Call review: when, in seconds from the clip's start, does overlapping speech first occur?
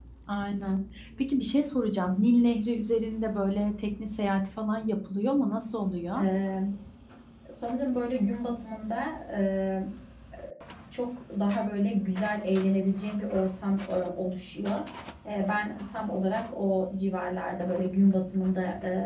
none

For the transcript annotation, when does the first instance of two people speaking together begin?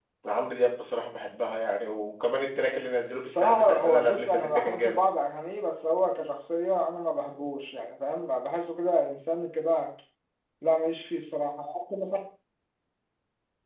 3.3 s

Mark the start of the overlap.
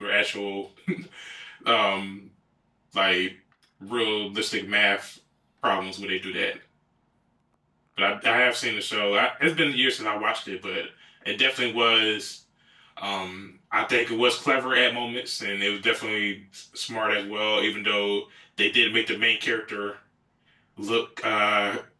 none

